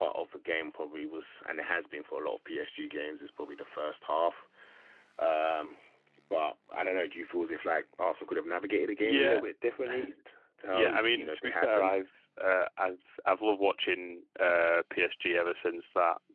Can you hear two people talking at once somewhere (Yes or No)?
Yes